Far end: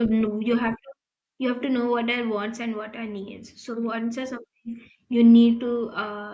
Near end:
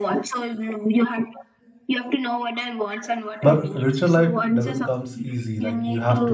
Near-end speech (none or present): present